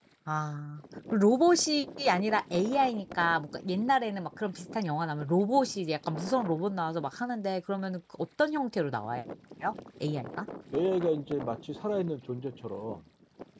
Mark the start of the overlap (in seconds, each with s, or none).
none